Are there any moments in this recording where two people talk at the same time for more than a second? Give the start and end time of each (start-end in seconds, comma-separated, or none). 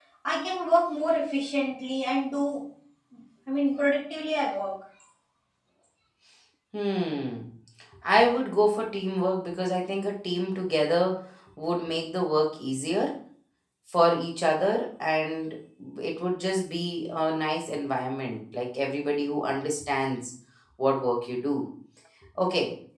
none